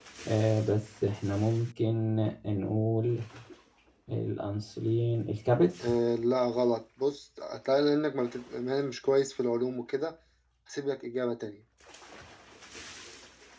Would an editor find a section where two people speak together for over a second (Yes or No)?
No